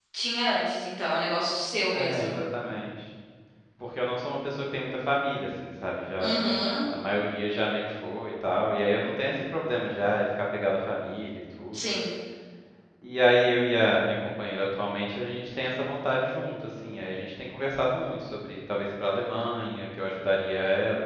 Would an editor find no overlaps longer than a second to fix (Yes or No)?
Yes